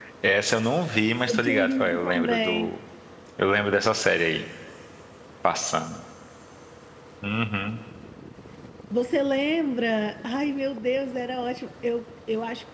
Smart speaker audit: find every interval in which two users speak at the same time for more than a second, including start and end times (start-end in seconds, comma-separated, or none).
1.3-2.7